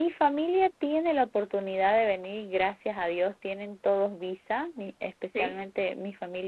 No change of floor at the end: Yes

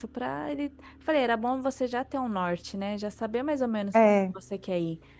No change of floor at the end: Yes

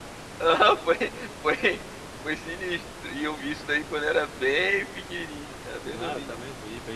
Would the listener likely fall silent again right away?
No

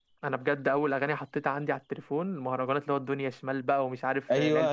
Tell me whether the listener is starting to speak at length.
Yes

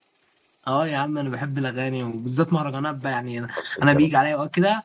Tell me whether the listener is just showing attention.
Yes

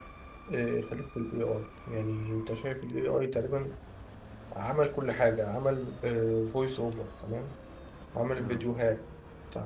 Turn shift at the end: No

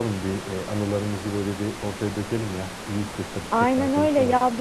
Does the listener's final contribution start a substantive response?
Yes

